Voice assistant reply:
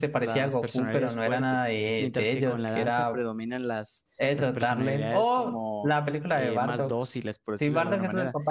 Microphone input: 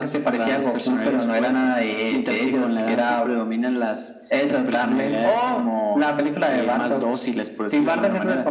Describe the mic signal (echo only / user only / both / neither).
echo only